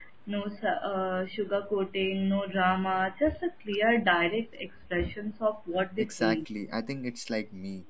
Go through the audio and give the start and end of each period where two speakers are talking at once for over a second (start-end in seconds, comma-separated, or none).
none